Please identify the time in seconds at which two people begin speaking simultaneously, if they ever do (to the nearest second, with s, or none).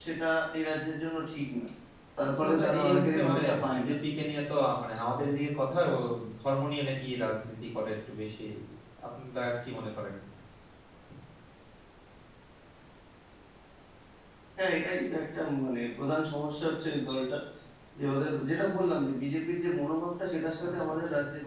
2 s